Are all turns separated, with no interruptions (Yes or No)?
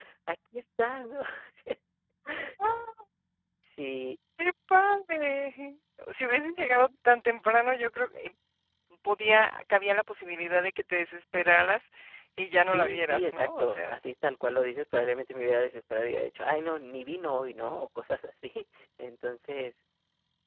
No